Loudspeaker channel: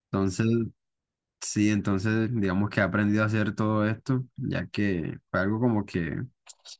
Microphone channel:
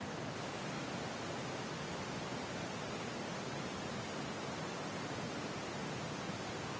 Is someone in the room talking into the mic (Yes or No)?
No